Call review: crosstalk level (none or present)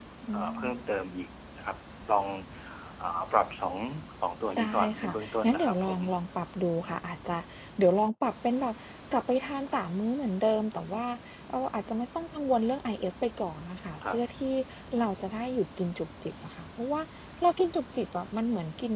present